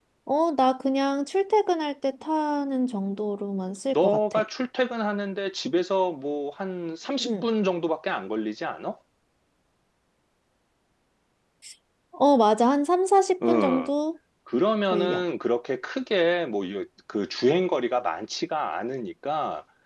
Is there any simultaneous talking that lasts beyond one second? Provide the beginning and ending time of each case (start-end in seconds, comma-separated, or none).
none